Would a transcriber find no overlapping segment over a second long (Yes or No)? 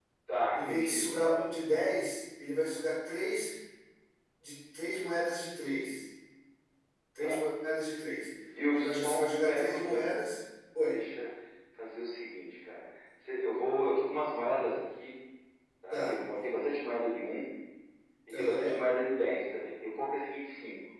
No